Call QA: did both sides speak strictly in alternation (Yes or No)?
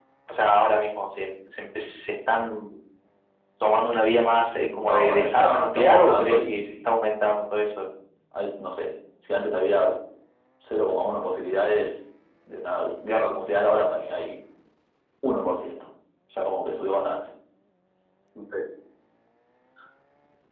No